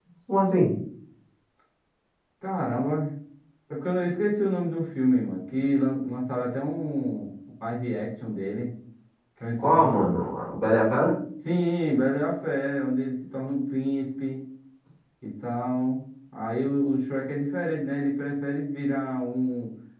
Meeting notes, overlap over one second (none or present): none